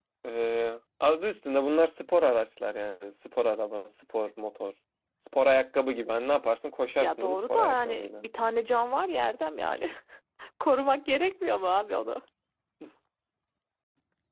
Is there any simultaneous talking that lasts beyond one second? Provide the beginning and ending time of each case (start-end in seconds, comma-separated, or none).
7.0-8.2